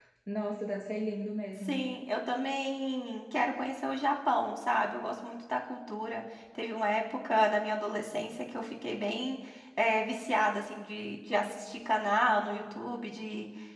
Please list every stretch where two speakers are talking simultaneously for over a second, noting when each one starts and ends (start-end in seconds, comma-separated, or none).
none